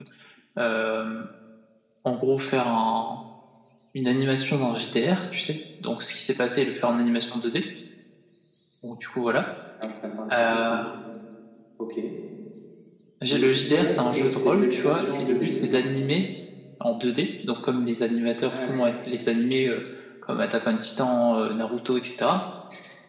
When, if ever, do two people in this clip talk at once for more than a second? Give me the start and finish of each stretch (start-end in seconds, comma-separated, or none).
13.3-15.8